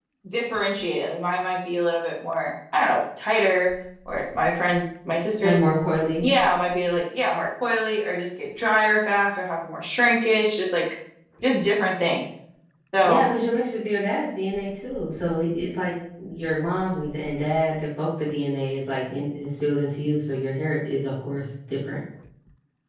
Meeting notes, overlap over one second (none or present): none